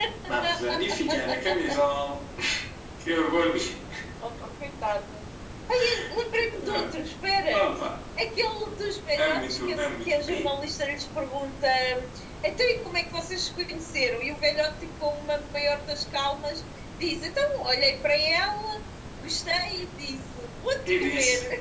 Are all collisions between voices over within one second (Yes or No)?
No